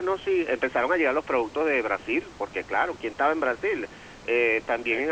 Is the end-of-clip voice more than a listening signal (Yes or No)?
No